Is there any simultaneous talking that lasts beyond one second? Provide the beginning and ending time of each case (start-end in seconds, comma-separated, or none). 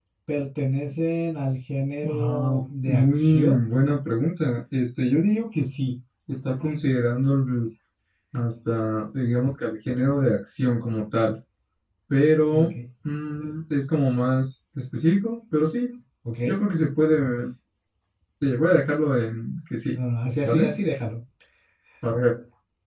2.0-3.6